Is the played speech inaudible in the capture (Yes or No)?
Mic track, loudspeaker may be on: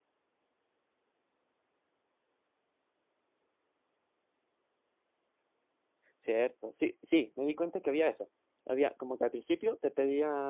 Yes